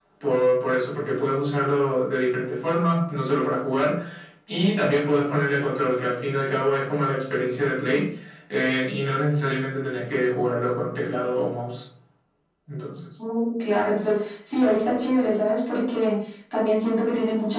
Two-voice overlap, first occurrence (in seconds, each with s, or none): none